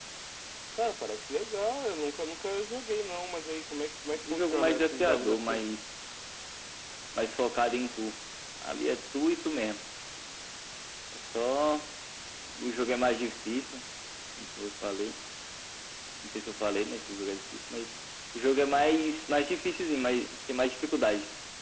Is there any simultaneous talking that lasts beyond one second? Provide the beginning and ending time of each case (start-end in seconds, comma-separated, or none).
4.3-5.6